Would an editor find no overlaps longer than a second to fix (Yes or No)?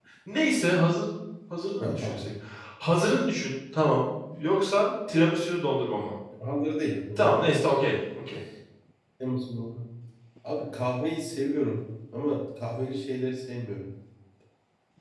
Yes